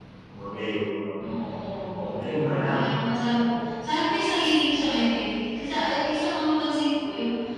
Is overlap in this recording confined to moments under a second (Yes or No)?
No